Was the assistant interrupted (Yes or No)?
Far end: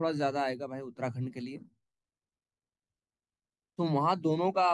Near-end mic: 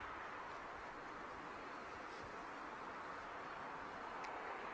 No